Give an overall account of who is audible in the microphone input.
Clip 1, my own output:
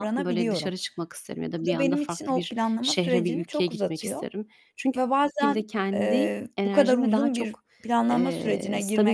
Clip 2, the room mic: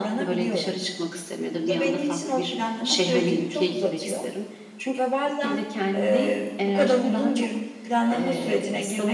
echo only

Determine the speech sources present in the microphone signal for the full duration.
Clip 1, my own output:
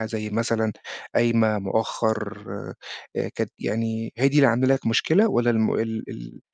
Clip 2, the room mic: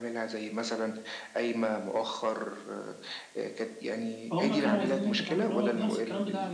both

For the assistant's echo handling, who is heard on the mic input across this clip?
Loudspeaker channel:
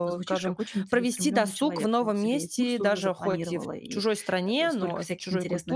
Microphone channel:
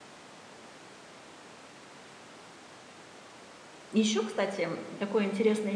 user only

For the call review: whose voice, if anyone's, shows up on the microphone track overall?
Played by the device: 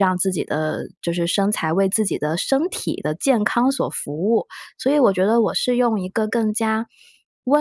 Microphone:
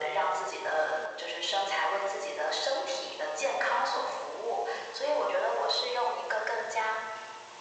echo only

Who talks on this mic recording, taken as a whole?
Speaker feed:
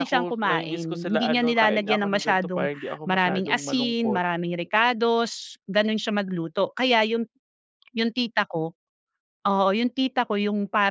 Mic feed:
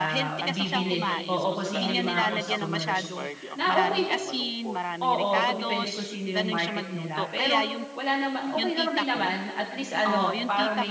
both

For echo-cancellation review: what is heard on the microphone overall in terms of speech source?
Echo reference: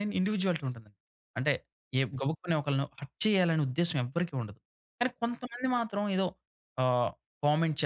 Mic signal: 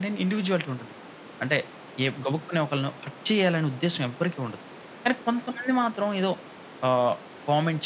echo only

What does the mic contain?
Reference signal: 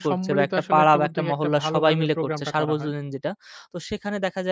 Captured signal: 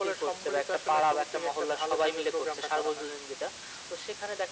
echo only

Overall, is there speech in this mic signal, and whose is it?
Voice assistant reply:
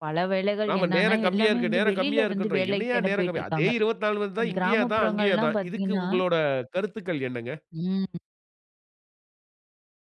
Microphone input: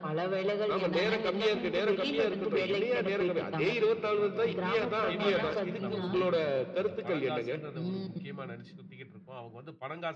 both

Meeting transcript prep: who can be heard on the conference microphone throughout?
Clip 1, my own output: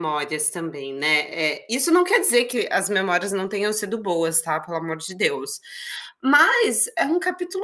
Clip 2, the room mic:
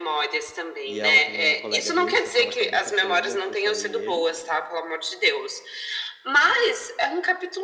both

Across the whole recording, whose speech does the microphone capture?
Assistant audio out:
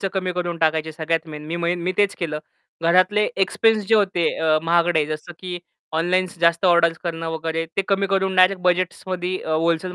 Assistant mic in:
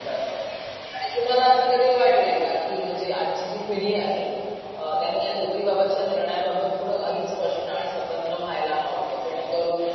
user only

